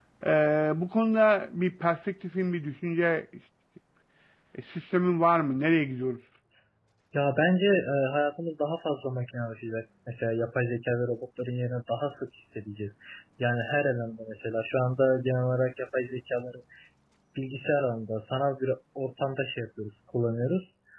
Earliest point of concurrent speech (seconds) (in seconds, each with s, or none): none